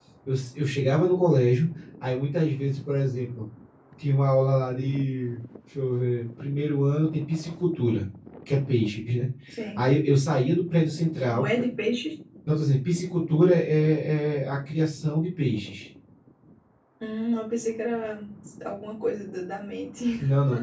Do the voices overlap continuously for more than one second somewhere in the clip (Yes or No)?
No